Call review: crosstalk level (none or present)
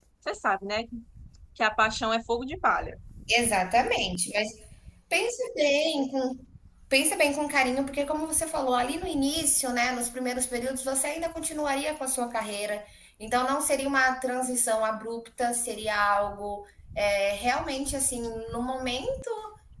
none